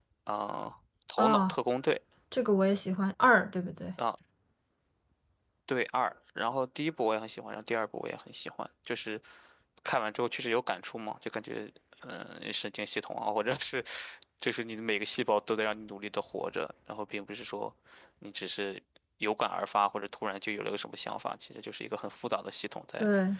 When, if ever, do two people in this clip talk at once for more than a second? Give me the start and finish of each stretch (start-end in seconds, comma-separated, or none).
none